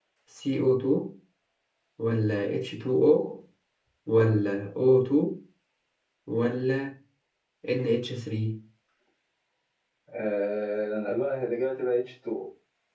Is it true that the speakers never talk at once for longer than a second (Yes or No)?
Yes